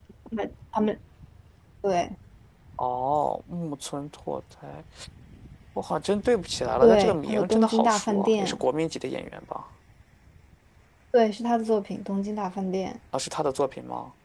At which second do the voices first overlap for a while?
6.8 s

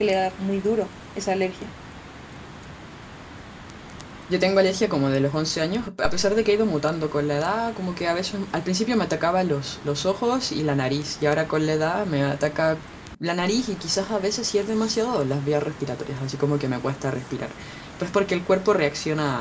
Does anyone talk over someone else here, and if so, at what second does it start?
none

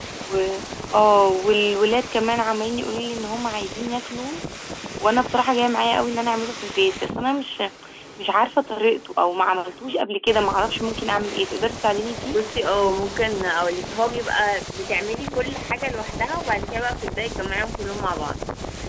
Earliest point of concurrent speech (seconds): none

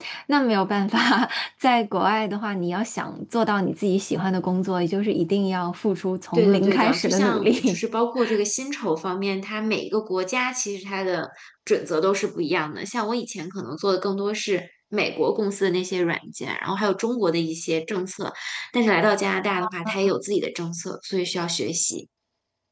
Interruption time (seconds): 6.3 s

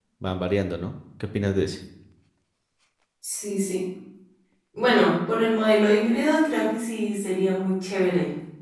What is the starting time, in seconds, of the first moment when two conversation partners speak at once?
none

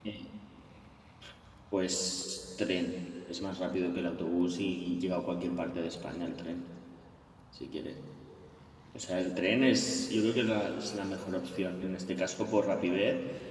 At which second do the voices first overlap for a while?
none

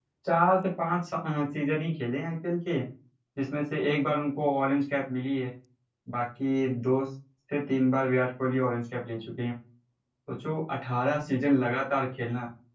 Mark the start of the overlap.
none

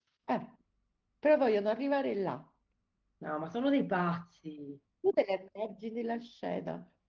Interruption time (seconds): none

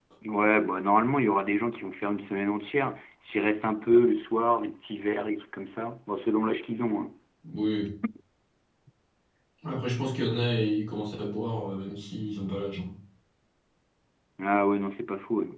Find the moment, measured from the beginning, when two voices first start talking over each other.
none

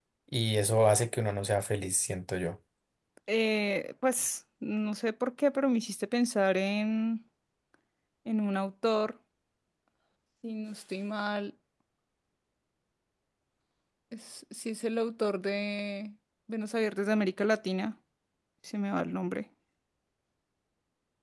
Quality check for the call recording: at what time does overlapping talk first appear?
none

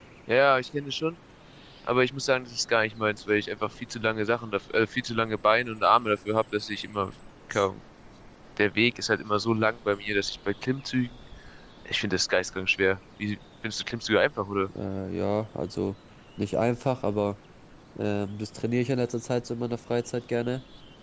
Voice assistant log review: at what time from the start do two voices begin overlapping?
none

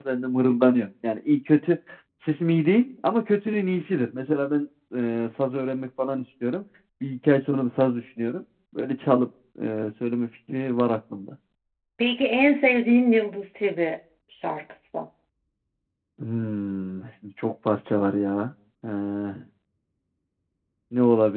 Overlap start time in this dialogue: none

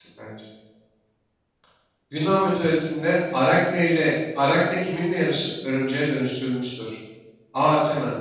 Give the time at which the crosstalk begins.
none

